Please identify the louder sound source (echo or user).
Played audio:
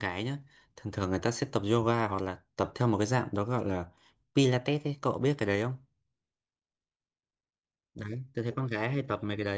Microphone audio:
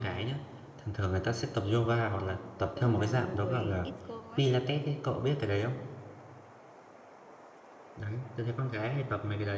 echo